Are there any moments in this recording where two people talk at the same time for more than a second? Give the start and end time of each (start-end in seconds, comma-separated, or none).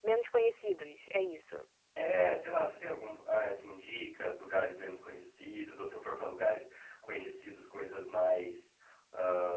none